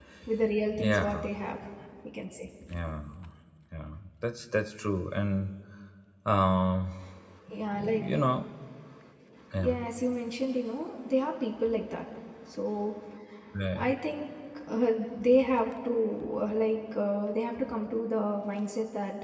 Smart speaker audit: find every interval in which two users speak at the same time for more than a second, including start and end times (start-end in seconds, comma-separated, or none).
none